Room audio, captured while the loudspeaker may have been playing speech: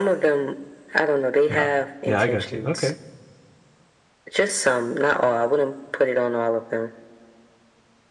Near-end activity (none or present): present